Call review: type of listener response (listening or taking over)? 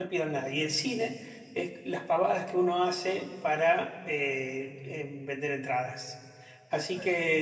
listening